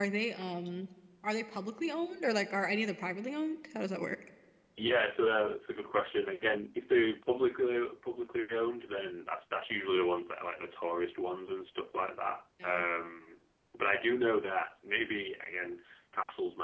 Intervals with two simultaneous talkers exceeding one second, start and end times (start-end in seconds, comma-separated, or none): none